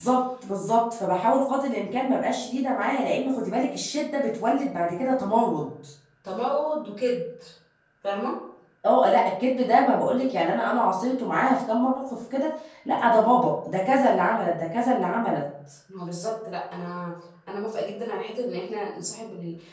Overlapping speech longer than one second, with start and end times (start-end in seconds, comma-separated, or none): none